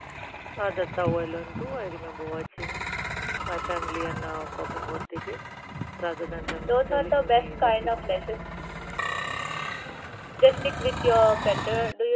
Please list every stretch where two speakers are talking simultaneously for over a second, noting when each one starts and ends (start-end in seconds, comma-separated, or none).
6.7-8.0